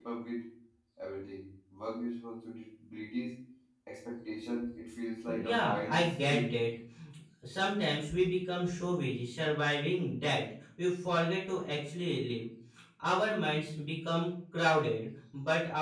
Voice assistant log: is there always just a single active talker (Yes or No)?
No